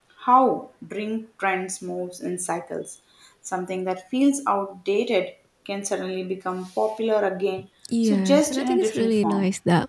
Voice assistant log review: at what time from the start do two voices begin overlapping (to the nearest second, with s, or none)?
8 s